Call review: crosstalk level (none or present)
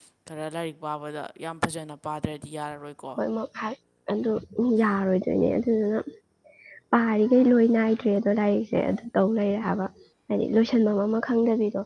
none